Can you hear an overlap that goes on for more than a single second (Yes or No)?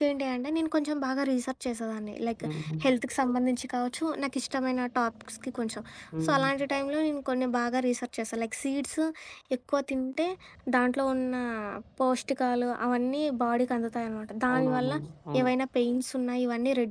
No